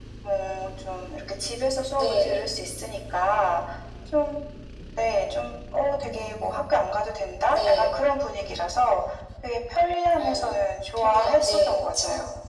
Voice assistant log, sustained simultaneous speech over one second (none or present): present